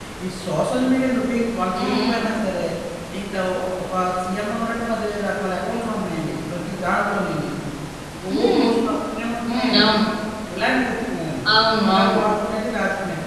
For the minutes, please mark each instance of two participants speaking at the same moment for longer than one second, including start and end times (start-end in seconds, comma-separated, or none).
none